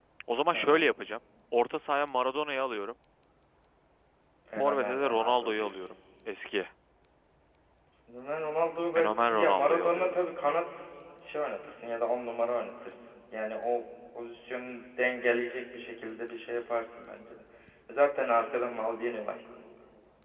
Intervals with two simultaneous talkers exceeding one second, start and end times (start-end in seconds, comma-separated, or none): 4.5-5.8, 8.9-10.2